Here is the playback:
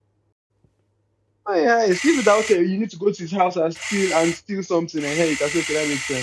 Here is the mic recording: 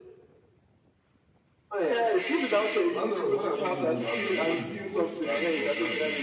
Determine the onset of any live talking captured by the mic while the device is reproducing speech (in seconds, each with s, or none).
2.9 s